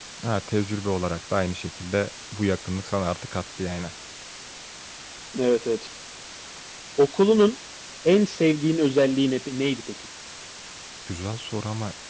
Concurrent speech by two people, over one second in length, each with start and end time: none

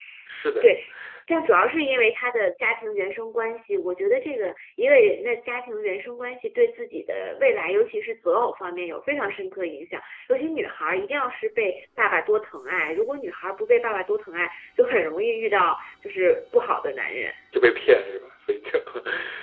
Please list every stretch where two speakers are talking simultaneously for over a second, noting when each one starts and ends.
none

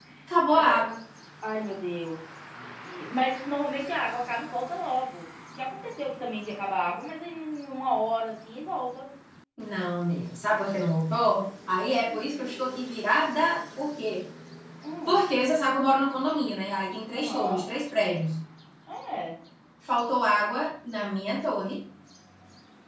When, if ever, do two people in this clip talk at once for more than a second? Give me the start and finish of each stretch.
none

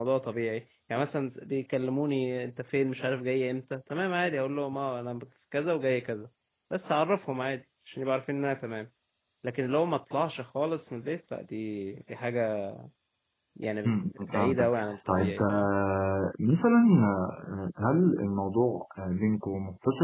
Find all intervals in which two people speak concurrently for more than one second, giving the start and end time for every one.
13.9-15.7

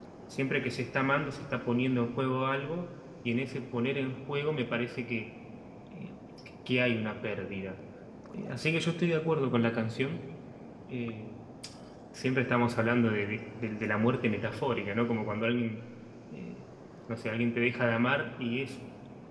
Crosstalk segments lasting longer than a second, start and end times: none

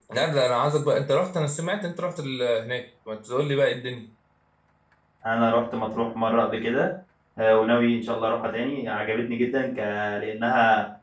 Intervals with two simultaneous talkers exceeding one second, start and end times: none

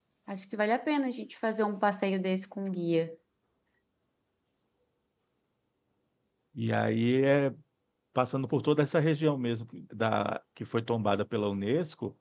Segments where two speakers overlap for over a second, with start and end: none

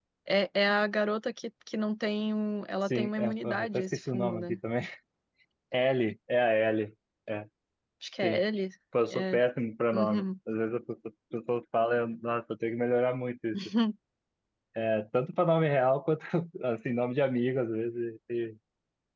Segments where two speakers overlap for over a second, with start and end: 2.9-4.6

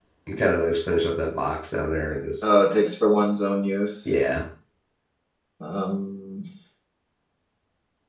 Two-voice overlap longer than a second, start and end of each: none

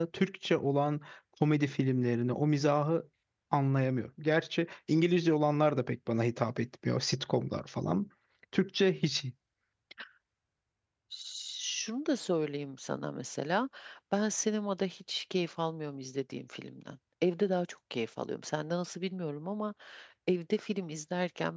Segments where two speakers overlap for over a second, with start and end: none

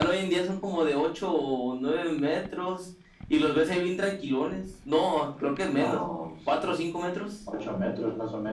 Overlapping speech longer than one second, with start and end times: none

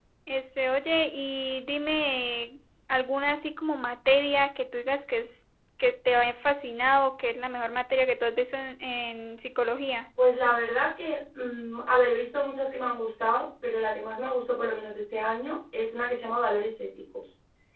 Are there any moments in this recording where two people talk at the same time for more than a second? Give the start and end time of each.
none

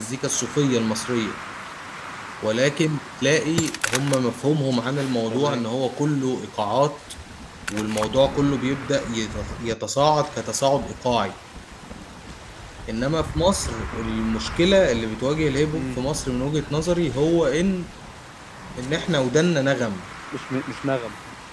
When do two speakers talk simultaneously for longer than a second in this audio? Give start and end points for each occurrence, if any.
none

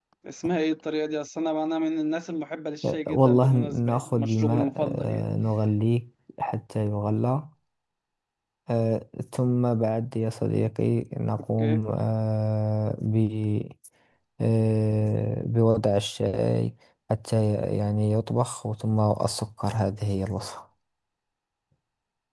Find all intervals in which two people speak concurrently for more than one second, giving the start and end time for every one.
2.8-5.2

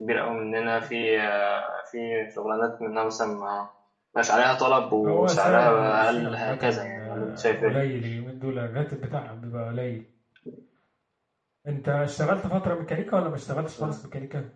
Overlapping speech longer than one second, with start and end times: 5.0-7.8

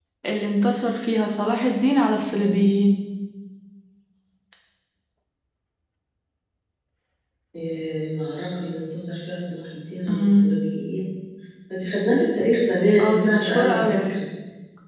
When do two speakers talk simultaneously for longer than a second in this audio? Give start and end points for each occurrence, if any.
13.0-14.2

